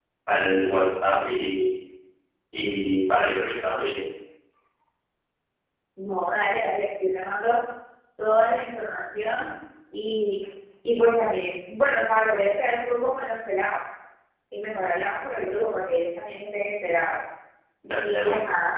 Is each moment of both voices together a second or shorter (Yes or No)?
Yes